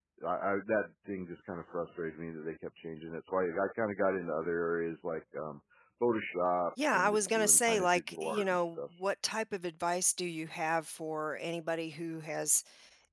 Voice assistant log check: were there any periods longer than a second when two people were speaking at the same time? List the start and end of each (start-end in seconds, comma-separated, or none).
6.9-8.8